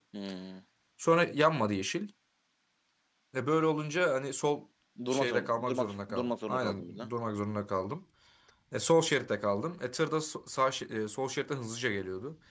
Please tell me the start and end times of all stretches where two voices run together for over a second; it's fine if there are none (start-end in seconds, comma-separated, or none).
5.1-7.1